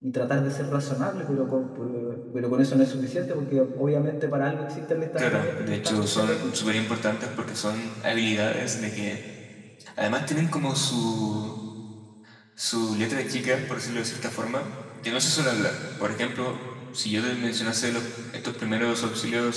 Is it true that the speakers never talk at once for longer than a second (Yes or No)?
No